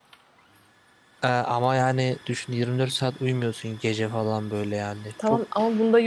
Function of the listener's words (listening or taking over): taking over